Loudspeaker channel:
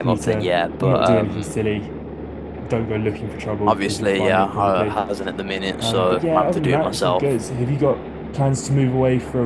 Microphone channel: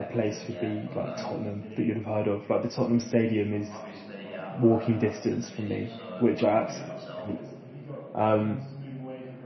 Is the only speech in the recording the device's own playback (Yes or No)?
No